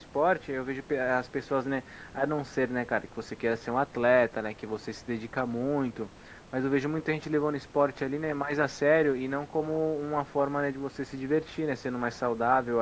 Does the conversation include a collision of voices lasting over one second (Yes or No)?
No